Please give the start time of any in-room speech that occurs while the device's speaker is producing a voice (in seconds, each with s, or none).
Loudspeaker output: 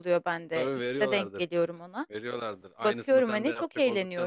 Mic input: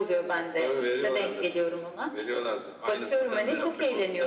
none